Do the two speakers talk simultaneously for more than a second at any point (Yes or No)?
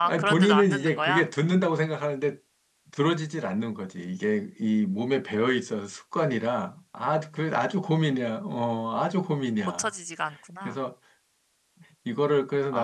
Yes